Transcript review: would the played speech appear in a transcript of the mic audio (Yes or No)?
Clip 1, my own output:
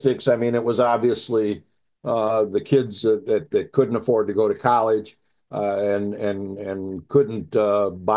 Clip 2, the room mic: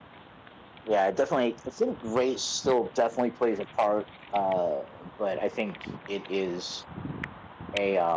No